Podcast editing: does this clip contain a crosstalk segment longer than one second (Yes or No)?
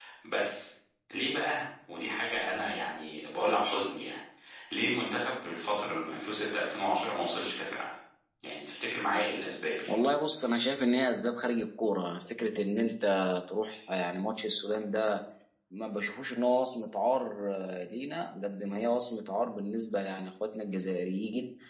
No